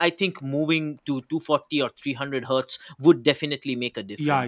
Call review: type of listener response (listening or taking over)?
taking over